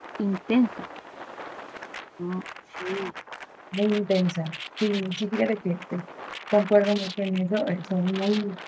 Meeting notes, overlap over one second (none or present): none